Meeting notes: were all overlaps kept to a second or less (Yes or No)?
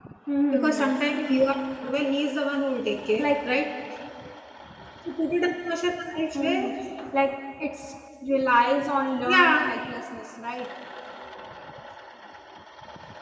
Yes